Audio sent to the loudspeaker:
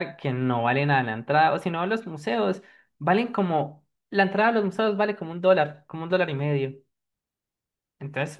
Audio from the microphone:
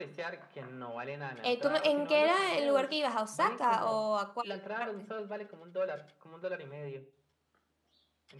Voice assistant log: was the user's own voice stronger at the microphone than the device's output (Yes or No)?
Yes